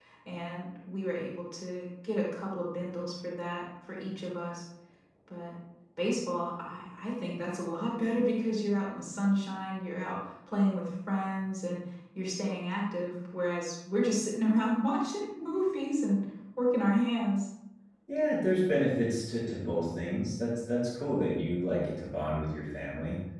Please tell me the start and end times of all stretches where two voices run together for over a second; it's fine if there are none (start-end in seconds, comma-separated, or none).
none